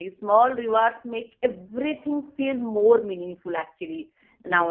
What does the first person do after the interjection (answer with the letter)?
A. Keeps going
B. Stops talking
B